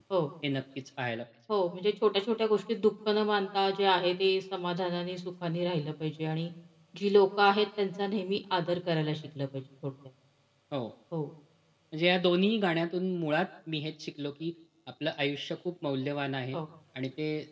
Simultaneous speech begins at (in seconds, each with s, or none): none